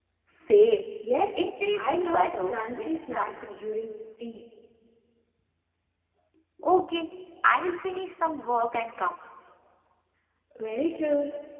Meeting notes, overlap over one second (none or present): present